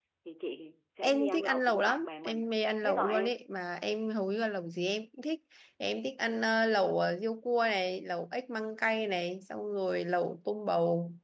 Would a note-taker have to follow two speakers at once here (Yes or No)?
Yes